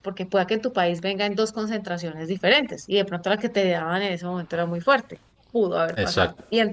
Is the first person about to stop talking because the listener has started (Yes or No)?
Yes